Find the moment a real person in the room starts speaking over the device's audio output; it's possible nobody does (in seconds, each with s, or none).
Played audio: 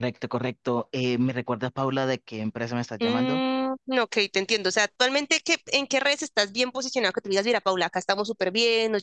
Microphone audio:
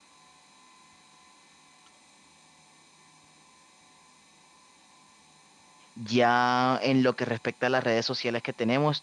5.9 s